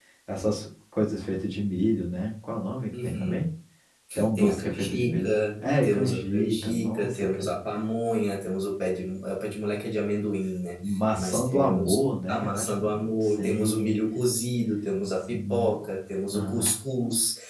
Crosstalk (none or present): present